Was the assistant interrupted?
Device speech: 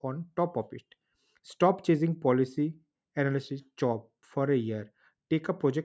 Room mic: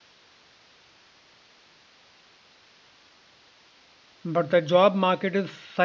Yes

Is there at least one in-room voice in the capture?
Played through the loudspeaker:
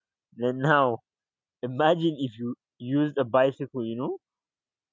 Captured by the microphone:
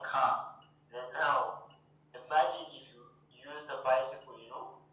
No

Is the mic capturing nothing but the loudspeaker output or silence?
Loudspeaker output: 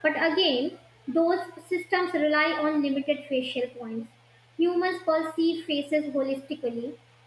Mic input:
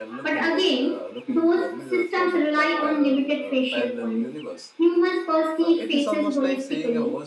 No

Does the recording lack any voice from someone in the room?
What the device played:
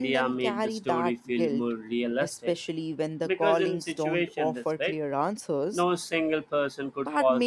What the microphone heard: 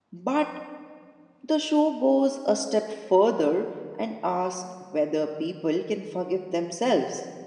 No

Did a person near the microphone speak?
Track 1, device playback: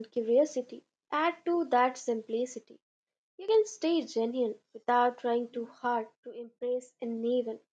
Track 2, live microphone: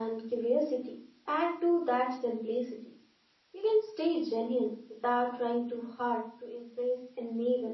No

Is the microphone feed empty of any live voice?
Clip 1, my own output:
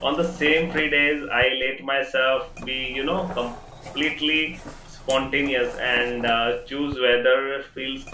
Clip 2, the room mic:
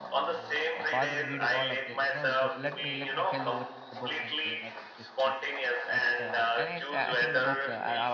No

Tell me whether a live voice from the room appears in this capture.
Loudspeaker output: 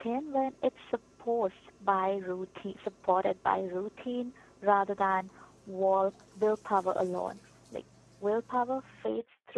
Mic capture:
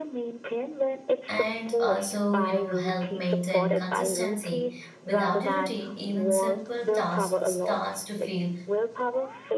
Yes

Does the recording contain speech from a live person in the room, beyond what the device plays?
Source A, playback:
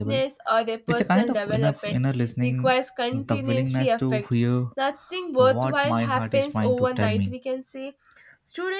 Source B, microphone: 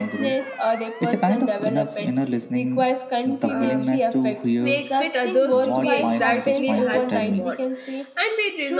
Yes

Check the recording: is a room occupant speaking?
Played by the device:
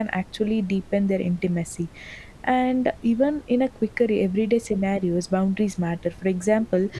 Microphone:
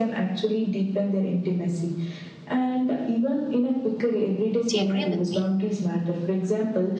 Yes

